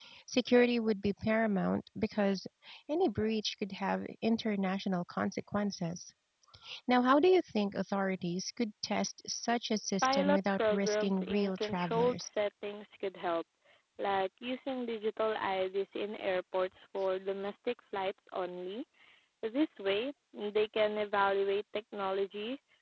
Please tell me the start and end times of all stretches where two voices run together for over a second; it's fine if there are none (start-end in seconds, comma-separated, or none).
10.0-12.3